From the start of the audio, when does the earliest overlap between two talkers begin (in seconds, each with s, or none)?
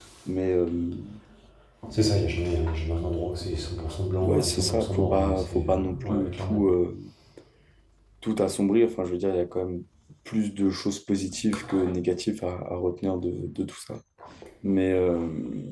4.2 s